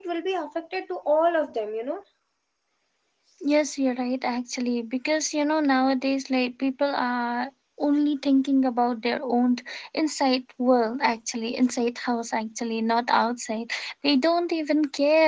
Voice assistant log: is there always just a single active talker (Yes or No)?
Yes